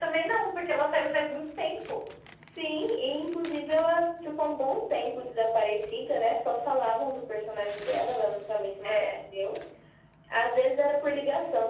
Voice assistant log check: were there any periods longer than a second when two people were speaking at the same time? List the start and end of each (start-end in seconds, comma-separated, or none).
none